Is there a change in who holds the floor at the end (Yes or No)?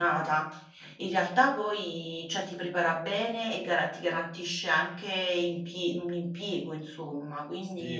Yes